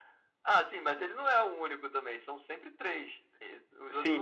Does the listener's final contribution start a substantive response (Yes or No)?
Yes